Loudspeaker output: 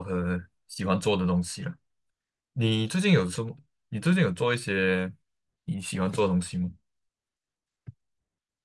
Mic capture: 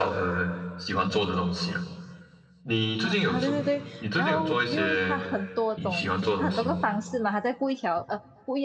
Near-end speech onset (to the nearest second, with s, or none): 3 s